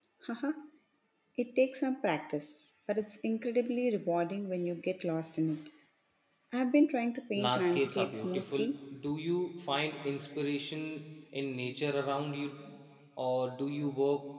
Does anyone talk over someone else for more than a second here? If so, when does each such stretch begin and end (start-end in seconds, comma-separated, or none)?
7.4-8.6